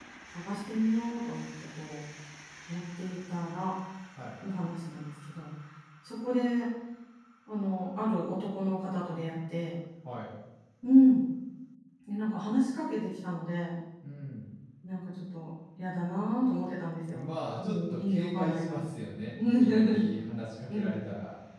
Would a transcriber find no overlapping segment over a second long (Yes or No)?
No